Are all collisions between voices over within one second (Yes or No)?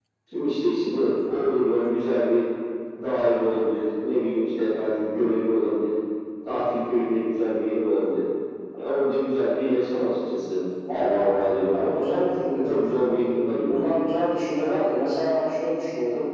Yes